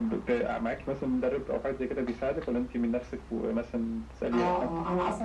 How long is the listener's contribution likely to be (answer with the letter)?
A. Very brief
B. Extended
B